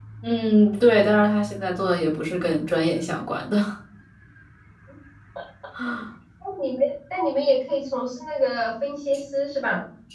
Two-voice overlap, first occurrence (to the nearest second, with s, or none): none